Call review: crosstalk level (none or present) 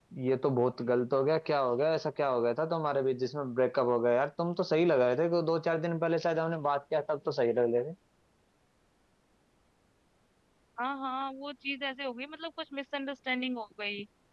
none